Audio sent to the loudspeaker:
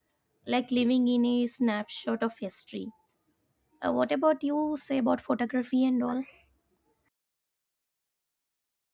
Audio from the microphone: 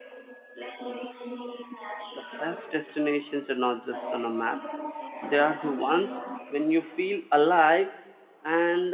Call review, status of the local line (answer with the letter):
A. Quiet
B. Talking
B